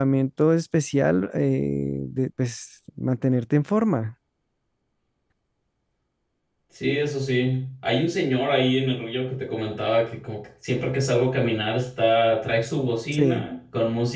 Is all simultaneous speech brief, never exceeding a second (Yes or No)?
Yes